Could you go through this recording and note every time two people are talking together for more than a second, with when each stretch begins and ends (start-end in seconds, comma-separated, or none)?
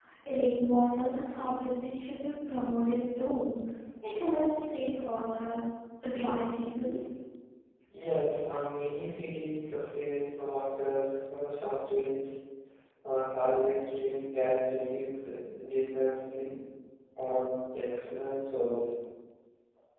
none